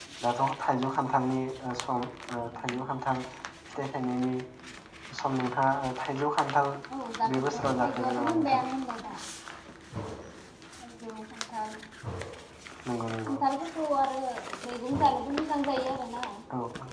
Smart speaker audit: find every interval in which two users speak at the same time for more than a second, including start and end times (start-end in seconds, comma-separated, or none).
7.3-8.6